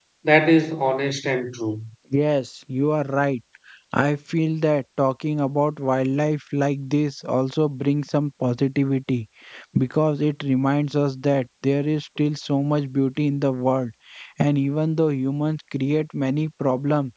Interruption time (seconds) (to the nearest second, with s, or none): none